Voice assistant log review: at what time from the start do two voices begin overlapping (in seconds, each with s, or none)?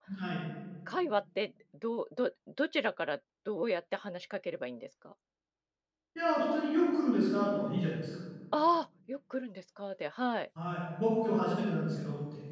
none